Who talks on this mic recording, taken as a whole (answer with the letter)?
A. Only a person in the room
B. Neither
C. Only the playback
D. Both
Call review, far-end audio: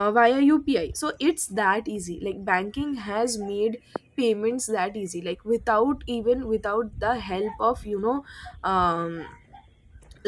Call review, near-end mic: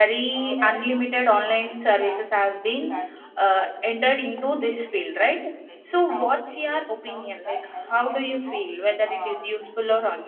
D